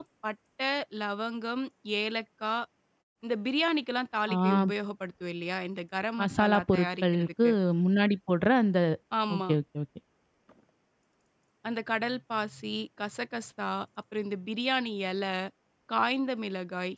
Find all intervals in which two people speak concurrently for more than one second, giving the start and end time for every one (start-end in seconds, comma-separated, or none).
6.2-7.5